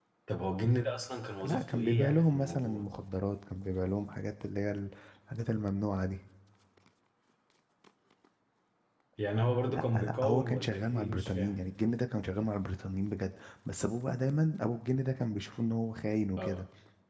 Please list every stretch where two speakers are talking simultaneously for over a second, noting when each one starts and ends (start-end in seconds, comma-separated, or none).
1.4-2.9, 9.7-11.6